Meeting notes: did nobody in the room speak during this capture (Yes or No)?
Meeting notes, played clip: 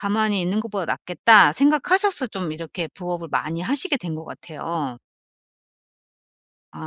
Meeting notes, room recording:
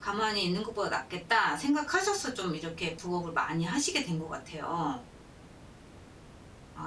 Yes